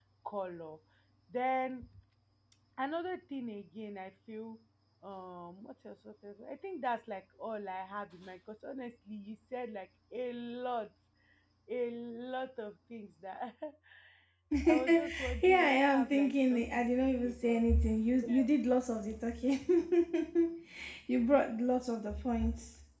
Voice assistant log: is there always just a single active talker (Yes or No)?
No